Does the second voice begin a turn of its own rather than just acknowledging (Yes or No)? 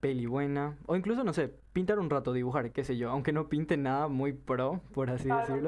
Yes